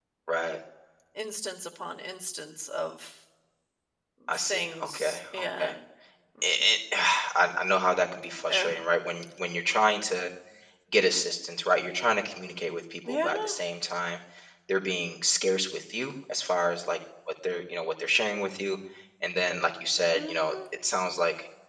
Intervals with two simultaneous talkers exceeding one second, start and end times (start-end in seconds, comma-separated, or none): 4.3-5.7